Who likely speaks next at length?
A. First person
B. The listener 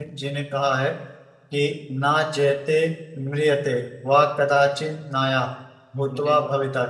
A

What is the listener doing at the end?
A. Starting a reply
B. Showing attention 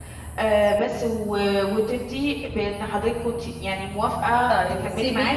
A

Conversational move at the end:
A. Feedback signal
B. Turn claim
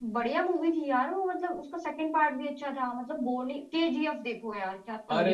B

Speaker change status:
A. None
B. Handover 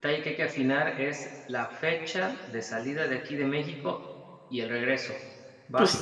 B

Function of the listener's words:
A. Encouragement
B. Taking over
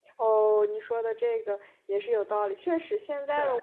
A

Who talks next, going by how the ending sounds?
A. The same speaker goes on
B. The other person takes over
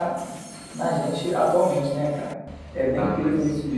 B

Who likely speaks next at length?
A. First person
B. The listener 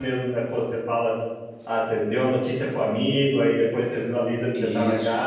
A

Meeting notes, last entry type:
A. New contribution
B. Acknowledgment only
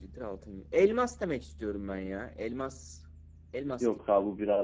A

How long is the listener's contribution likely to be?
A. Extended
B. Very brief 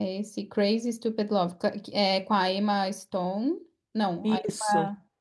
B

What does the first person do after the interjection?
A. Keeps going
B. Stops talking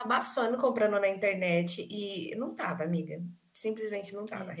A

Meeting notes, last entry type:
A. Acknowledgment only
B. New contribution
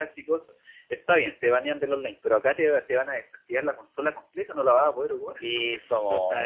B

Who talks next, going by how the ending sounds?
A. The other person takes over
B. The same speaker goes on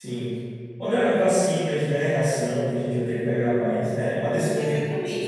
A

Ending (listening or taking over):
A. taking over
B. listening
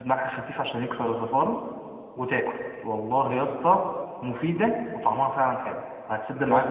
A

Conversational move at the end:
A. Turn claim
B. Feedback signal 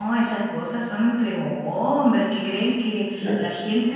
B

